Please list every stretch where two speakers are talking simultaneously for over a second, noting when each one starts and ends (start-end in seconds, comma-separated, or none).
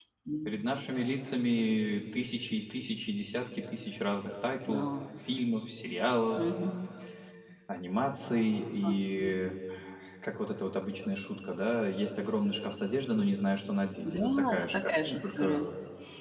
14.0-15.7